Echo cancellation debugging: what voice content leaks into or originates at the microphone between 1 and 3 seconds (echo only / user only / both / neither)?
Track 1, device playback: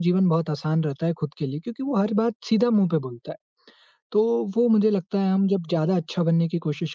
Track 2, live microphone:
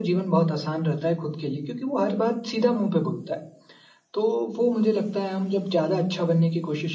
echo only